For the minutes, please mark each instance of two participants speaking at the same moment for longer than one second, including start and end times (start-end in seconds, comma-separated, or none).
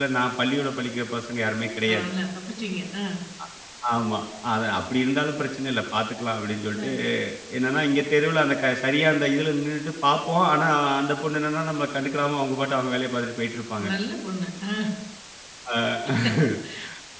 none